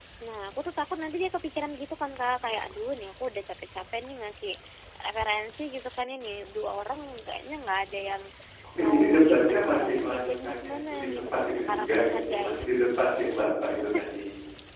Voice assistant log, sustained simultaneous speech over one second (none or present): present